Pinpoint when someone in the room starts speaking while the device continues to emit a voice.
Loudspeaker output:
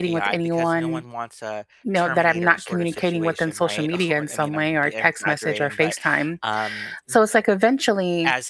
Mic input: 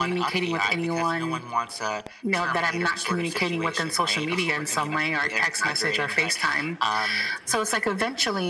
none

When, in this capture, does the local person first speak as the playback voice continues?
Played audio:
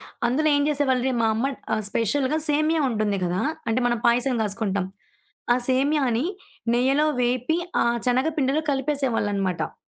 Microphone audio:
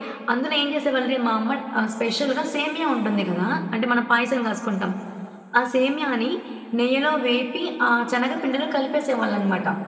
none

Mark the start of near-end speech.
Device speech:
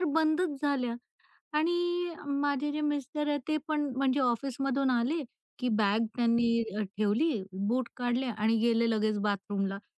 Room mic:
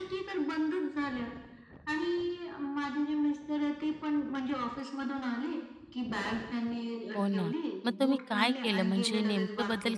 7.2 s

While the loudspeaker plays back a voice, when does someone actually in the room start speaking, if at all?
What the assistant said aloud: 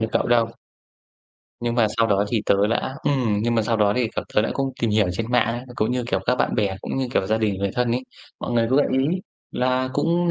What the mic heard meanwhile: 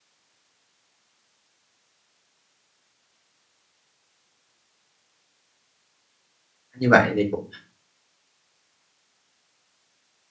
6.7 s

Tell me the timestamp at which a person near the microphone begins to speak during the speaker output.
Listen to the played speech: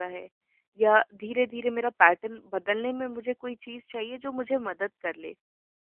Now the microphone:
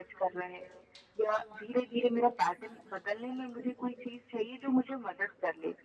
none

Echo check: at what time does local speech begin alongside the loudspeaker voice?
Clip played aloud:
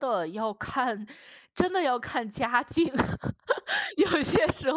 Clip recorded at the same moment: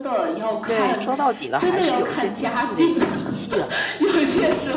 0.6 s

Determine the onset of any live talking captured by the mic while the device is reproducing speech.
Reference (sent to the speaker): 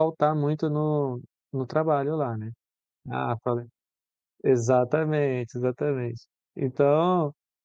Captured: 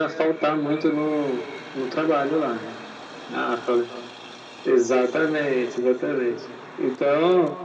none

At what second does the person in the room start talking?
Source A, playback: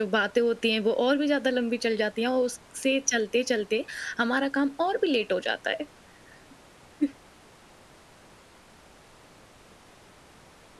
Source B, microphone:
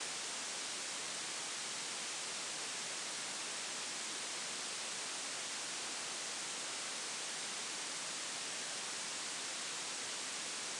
none

